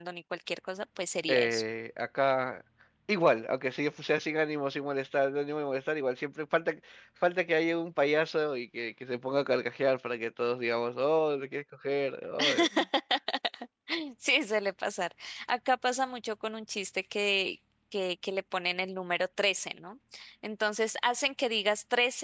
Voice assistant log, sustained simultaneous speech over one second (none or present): none